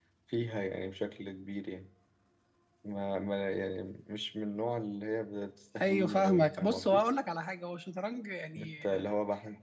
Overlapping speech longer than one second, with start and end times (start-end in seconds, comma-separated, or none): 5.8-7.0